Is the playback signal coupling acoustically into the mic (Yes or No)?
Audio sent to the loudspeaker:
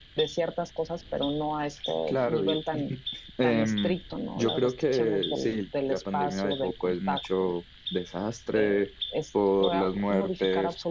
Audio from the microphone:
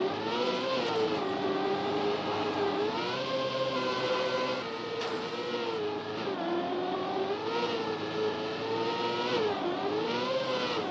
No